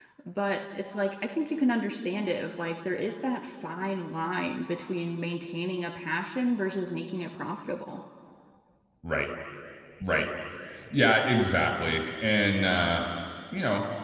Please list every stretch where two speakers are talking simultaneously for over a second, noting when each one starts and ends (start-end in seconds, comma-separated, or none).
none